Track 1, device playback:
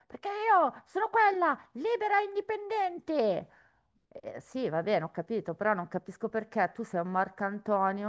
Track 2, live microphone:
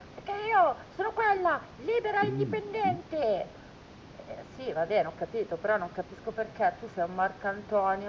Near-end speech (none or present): present